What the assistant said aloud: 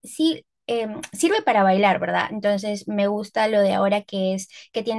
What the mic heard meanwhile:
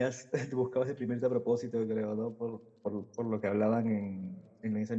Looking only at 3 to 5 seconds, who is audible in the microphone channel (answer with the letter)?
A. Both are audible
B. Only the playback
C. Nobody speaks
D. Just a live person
D